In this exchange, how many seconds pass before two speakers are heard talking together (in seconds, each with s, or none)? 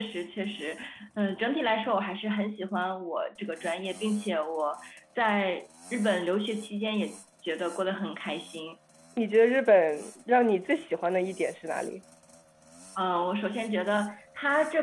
none